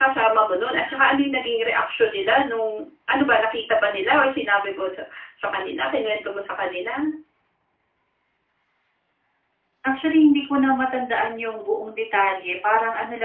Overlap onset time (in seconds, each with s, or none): none